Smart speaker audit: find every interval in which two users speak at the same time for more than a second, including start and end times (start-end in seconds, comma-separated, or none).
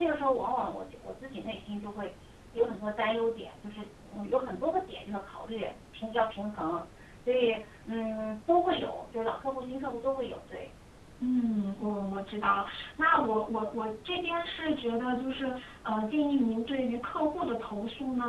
none